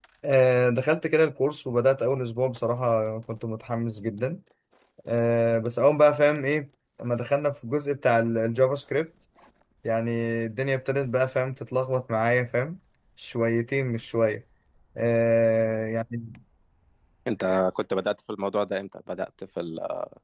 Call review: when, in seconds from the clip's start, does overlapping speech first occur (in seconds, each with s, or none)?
none